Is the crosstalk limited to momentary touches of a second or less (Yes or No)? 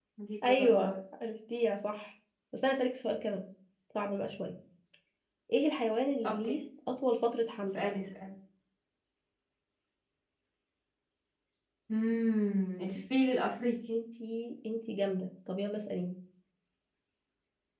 Yes